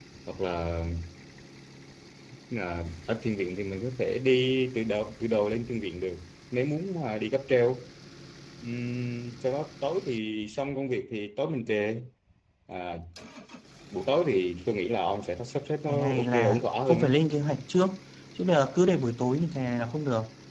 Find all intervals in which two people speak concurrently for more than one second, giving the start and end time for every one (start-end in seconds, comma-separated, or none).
15.9-17.2